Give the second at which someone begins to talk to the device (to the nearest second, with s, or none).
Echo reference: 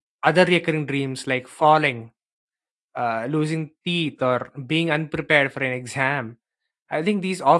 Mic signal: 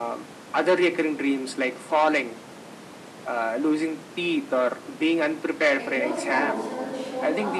6 s